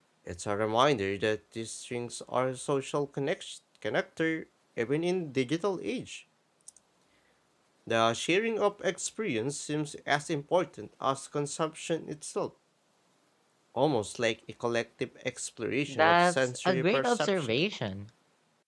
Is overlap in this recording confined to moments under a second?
No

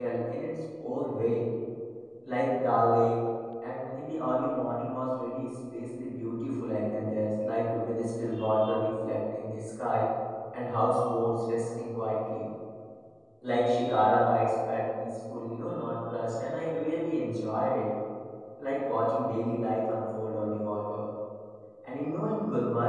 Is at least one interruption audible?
No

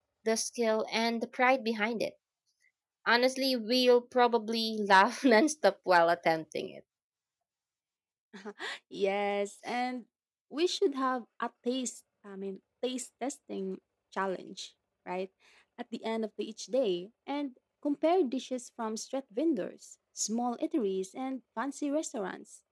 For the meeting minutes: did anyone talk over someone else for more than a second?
No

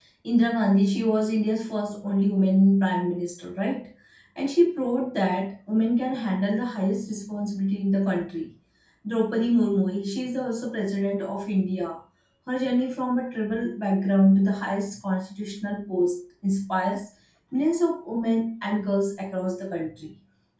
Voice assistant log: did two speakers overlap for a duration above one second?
No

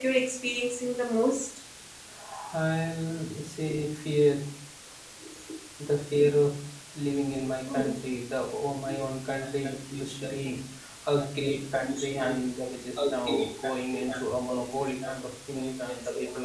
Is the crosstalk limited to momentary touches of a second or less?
Yes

